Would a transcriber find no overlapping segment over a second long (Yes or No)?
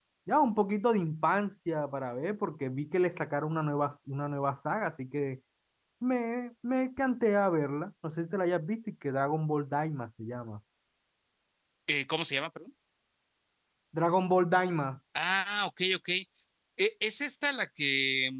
Yes